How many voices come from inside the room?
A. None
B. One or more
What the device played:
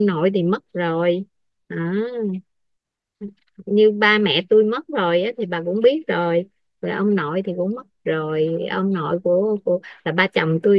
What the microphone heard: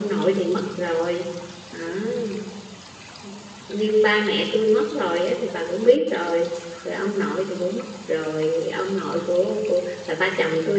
A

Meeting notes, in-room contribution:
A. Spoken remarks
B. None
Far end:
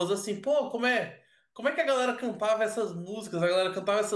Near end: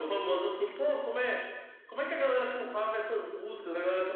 B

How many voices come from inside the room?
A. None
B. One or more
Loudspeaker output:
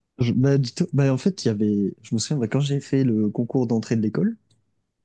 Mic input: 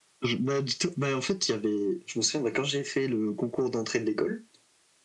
A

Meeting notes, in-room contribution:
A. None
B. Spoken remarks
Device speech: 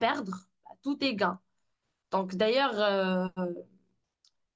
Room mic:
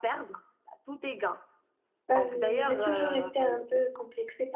B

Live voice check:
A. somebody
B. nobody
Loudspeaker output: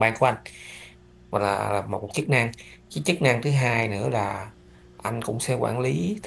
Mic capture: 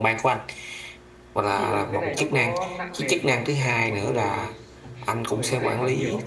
A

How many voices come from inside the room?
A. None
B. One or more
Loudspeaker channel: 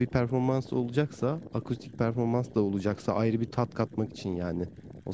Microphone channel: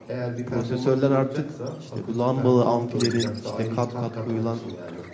B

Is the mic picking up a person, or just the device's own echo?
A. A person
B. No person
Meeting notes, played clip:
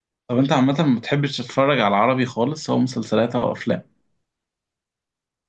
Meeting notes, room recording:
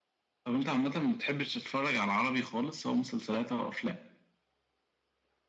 B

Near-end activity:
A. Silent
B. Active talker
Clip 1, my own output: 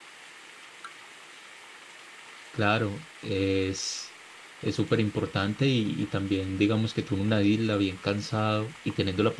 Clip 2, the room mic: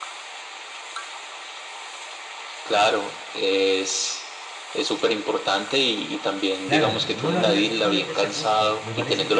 B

